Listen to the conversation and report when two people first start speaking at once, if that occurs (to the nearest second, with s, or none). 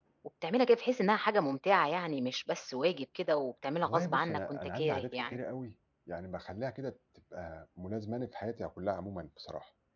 4 s